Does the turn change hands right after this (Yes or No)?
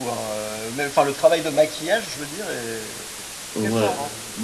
Yes